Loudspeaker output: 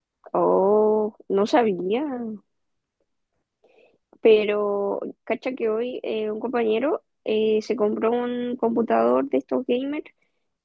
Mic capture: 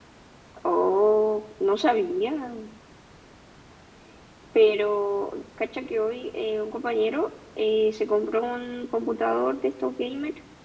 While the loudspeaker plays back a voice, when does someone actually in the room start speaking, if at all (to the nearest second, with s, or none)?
none